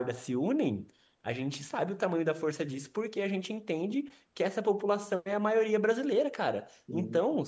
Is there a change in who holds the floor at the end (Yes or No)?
No